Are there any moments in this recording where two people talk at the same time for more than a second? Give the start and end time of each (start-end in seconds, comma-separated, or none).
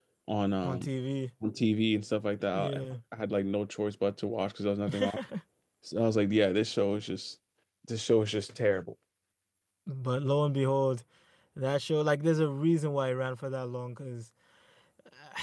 none